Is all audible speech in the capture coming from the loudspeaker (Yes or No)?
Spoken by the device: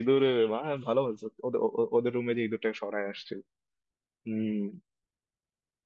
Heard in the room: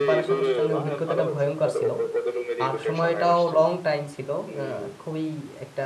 No